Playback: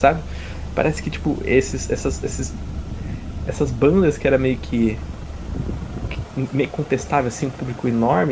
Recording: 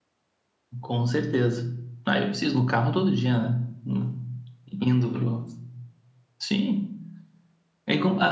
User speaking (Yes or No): Yes